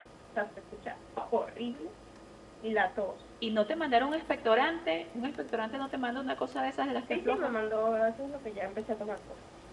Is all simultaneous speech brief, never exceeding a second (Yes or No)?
Yes